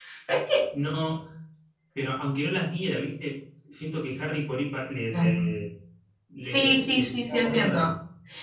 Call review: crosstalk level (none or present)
present